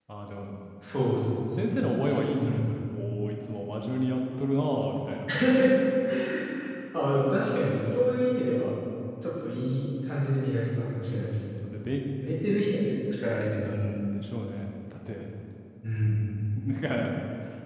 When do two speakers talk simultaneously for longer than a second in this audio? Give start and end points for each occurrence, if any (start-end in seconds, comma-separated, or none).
none